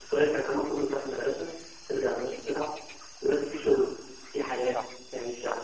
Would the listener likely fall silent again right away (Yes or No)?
Yes